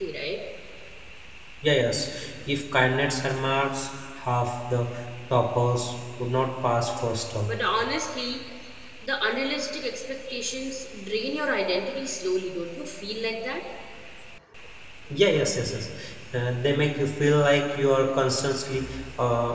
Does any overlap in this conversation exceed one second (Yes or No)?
No